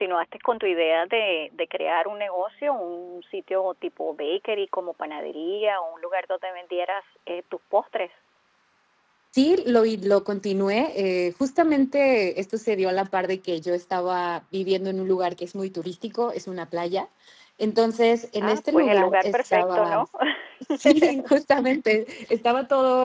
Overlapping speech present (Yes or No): Yes